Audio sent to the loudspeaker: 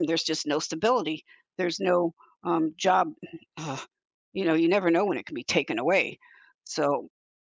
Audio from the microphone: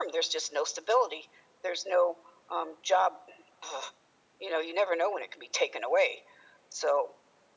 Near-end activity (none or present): none